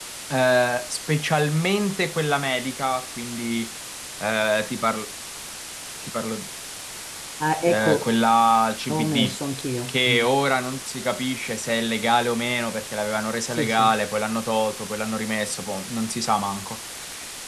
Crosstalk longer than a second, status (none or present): none